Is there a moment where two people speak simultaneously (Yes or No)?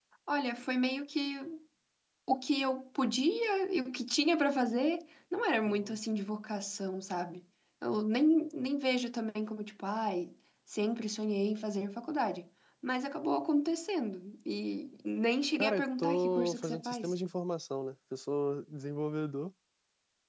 Yes